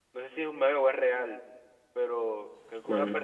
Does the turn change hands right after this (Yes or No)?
No